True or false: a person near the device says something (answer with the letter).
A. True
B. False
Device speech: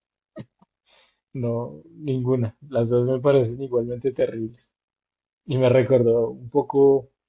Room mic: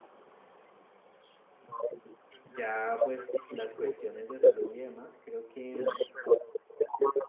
A